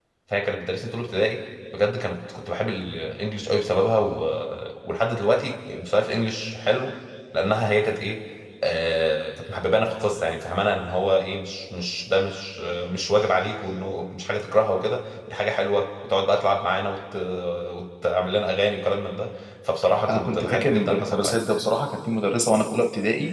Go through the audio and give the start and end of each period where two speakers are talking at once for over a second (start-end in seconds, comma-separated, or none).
20.1-21.4